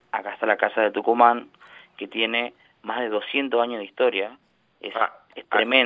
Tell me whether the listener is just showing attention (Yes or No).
Yes